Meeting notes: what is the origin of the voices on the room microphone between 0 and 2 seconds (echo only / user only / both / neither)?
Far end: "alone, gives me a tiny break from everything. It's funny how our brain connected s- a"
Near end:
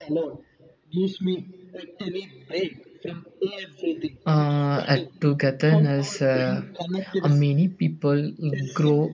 echo only